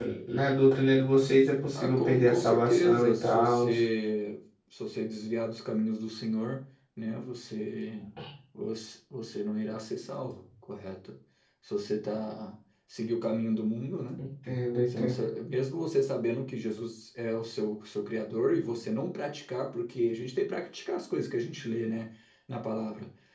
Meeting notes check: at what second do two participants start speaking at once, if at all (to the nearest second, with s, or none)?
2 s